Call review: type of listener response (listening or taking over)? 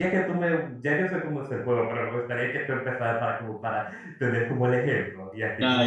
taking over